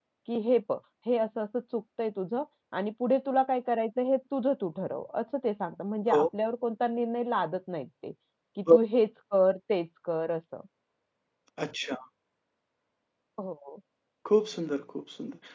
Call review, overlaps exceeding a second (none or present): none